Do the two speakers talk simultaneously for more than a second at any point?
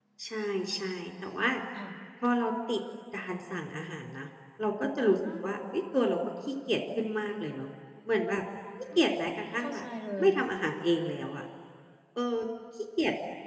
No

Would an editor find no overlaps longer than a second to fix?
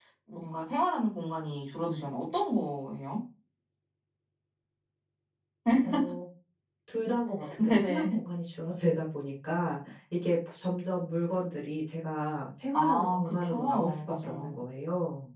No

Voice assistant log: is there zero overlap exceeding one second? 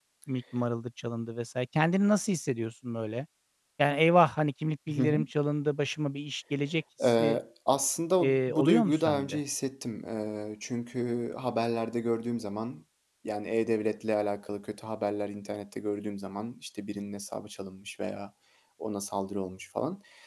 No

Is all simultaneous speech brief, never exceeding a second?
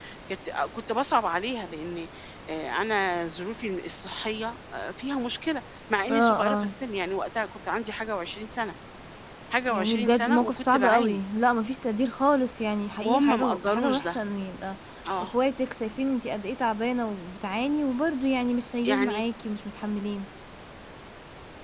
No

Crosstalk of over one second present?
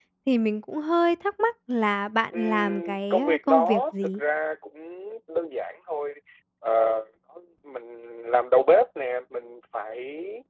Yes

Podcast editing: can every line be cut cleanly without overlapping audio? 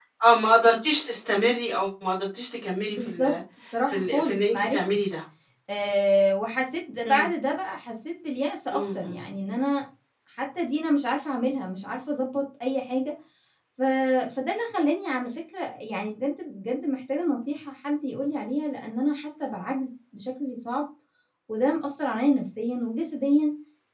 No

